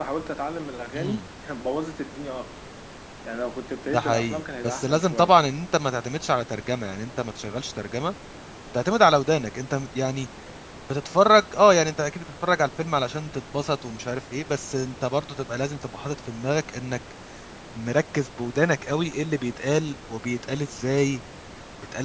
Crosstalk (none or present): present